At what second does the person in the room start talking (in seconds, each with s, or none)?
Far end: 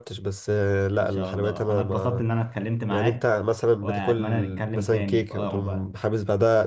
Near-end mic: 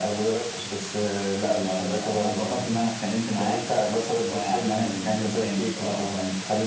none